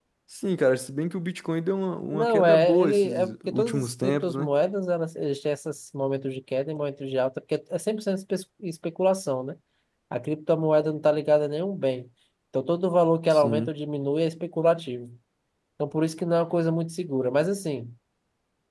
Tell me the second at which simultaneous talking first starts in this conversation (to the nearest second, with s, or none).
2 s